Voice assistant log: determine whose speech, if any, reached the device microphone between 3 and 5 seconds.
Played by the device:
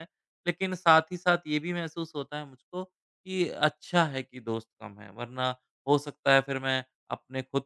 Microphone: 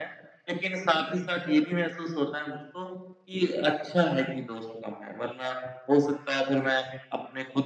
echo only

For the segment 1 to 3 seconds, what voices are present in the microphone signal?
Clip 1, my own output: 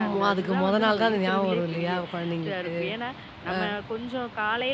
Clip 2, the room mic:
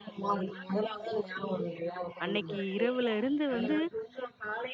both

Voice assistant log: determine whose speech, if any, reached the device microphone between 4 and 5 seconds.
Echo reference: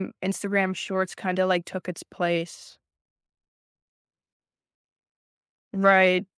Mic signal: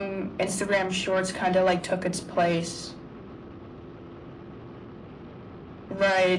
neither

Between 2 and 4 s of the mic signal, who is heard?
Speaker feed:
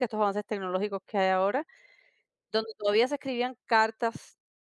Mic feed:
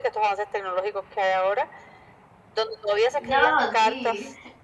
both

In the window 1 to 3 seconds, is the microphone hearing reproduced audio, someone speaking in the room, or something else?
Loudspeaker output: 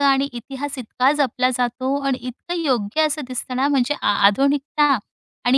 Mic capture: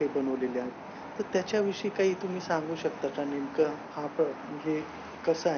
user only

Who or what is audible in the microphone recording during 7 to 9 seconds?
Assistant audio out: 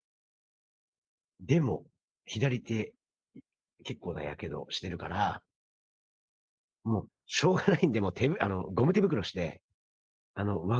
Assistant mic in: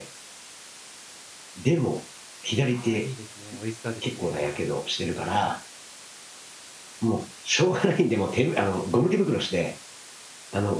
echo only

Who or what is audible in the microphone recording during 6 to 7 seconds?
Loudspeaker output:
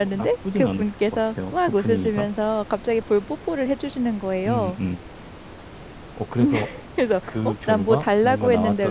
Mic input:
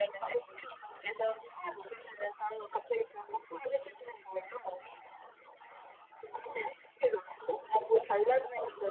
echo only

